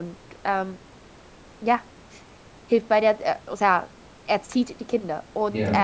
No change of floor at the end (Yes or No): Yes